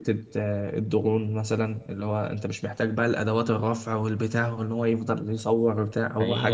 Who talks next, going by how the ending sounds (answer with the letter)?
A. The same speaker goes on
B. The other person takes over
B